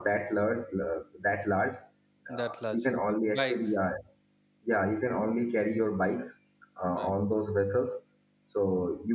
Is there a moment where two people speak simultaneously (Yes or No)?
Yes